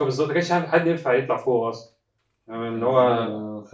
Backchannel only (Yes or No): No